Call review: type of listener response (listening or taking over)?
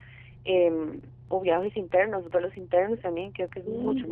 taking over